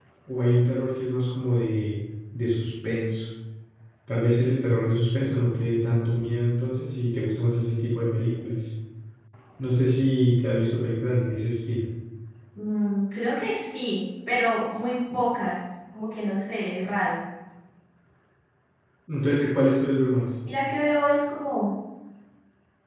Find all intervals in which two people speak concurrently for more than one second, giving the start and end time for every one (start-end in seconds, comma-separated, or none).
none